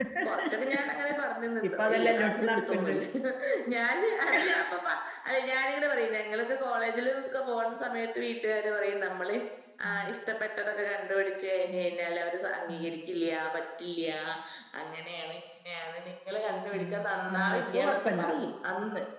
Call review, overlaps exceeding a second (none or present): present